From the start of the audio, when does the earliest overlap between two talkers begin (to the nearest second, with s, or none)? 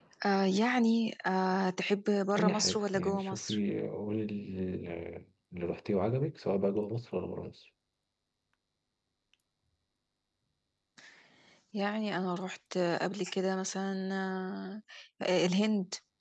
2 s